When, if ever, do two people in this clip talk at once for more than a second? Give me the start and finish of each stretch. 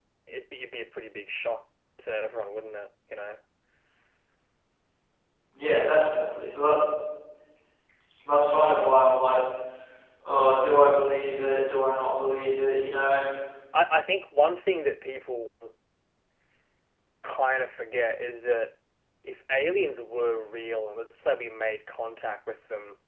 none

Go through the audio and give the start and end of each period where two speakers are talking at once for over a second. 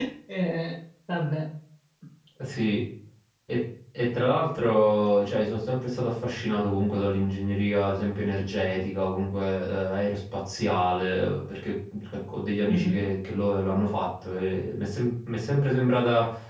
none

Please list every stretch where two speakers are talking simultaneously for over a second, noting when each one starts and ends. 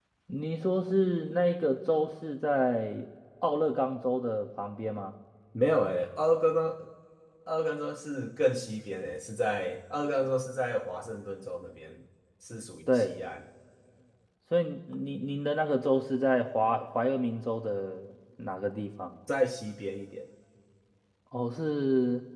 none

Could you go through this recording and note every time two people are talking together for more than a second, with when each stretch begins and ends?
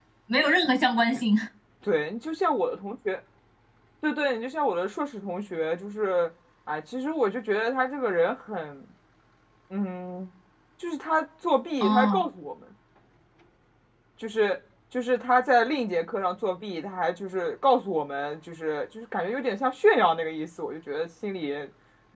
none

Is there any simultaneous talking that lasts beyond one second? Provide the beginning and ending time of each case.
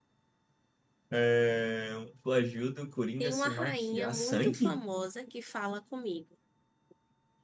3.2-4.8

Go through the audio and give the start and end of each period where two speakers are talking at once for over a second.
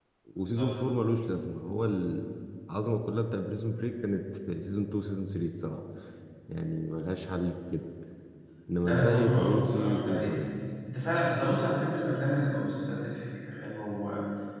8.8-10.3

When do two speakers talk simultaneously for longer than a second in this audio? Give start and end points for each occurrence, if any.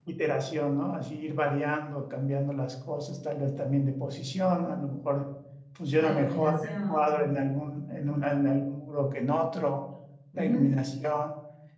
6.0-7.3

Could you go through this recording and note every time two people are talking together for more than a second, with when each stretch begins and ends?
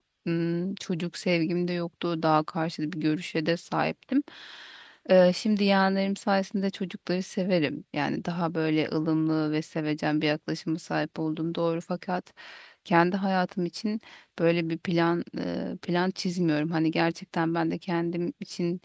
none

